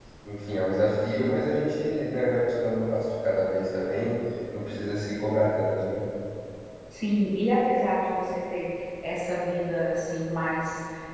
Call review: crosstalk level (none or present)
none